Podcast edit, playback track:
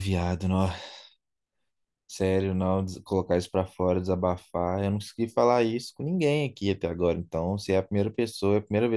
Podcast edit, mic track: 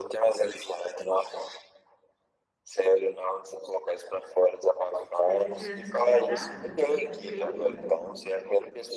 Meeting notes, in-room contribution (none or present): present